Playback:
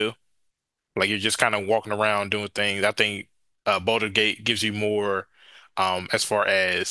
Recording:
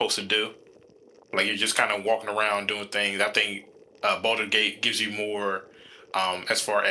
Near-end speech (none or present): none